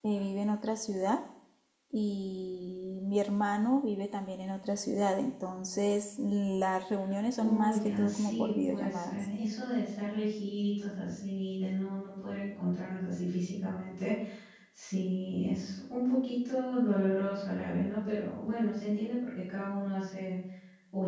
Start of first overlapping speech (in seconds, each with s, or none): 7.3 s